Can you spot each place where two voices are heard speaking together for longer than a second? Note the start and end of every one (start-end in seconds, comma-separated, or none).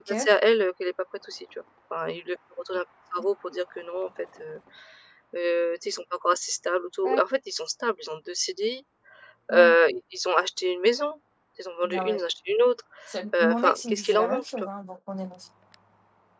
13.4-14.7